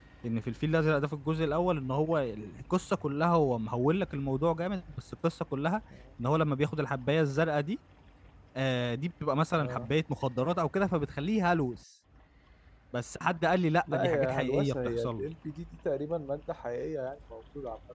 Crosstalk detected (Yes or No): Yes